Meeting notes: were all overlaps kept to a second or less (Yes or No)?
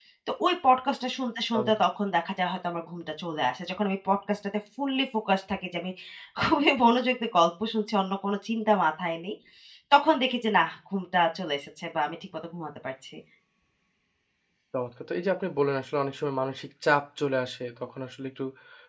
Yes